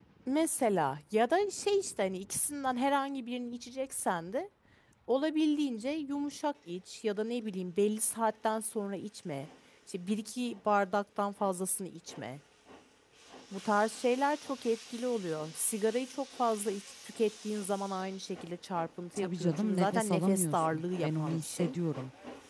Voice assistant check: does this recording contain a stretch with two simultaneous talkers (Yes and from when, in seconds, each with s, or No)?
Yes, from 19.2 s